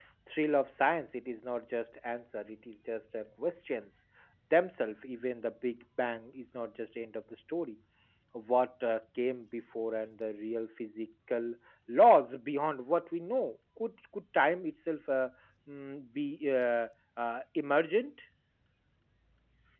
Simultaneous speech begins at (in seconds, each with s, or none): none